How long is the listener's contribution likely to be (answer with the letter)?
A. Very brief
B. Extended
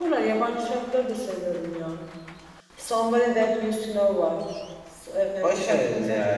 B